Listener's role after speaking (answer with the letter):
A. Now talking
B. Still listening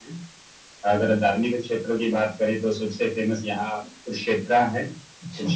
B